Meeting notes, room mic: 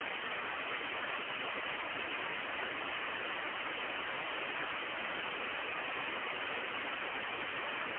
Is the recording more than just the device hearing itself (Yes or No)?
No